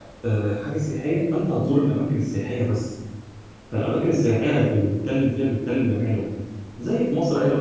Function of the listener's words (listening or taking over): listening